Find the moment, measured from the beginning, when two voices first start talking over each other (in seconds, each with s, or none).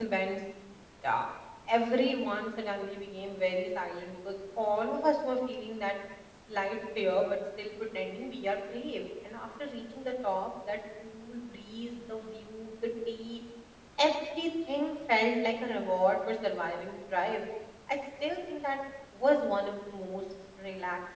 none